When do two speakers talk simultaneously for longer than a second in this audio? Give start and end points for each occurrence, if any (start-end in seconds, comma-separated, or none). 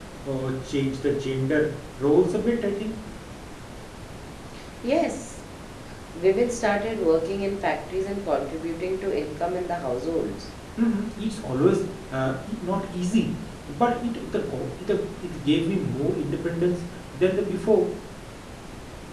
none